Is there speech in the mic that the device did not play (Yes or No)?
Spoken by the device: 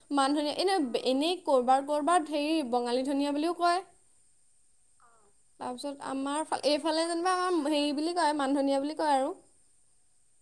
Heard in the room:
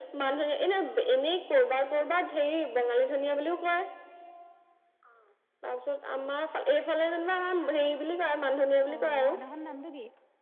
Yes